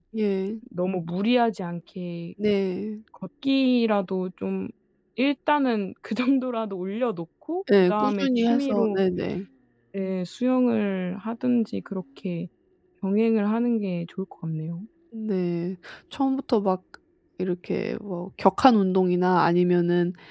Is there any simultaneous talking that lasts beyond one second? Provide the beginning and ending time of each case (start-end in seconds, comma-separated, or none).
7.8-9.0